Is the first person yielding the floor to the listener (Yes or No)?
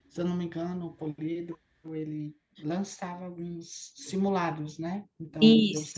No